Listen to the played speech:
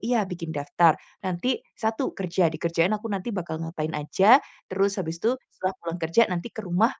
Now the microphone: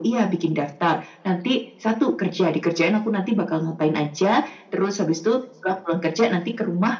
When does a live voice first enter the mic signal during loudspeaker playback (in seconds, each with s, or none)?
none